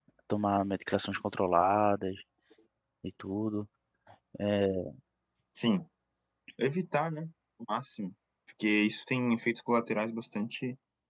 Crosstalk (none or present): none